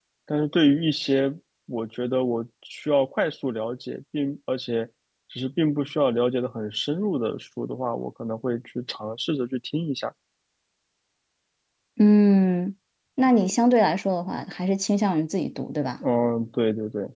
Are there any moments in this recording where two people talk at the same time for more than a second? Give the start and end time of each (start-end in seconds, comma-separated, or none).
none